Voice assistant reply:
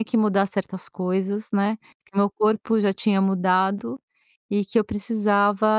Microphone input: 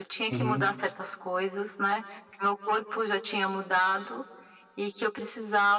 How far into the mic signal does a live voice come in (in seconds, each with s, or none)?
0.3 s